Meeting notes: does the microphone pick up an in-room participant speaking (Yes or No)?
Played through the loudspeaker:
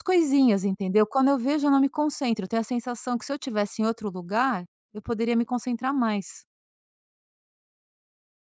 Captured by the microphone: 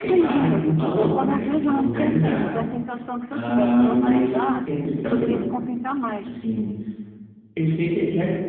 Yes